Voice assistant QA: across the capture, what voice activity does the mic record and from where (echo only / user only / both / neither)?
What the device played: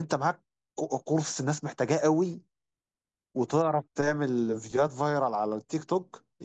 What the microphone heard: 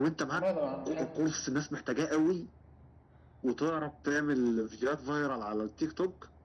both